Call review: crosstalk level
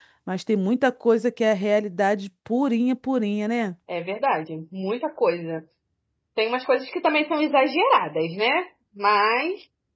none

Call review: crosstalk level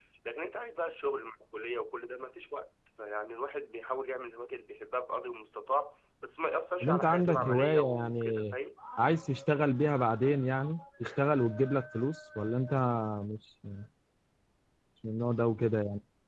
present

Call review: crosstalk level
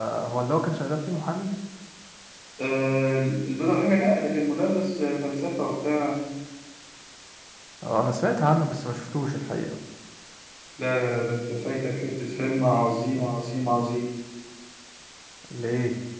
none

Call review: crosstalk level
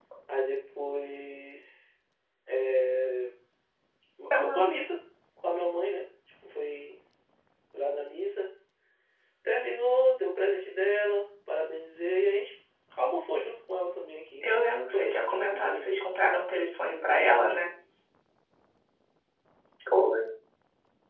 present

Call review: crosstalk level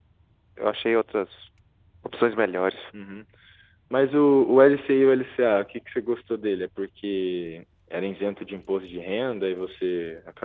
none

